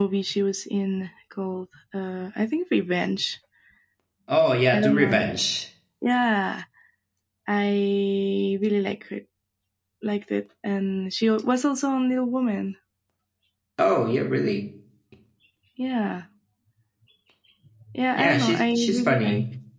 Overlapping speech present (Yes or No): Yes